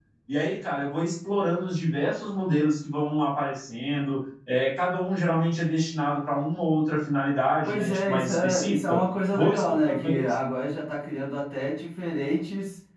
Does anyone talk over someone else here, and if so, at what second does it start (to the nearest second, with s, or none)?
8 s